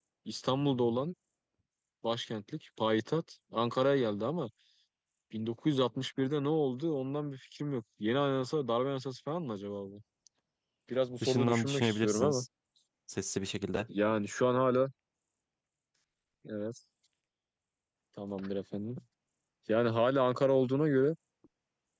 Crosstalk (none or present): present